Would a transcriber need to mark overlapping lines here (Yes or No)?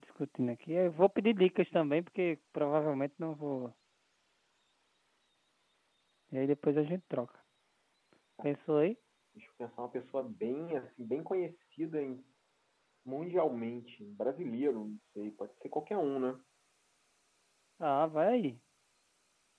No